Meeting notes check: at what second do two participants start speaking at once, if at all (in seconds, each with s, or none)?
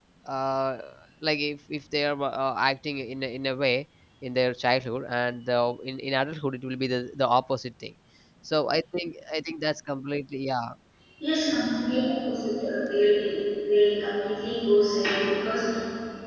none